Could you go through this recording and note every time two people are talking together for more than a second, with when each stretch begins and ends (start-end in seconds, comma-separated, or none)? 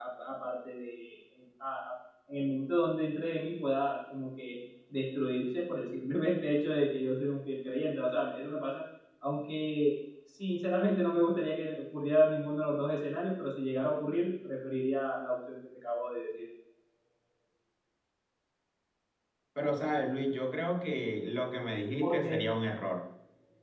none